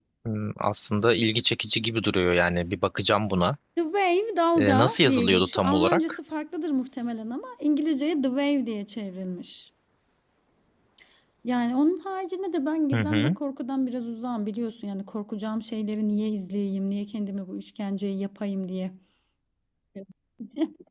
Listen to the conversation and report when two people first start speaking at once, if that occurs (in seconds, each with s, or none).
4.6 s